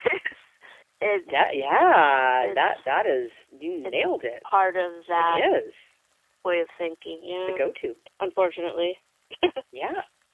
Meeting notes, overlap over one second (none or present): none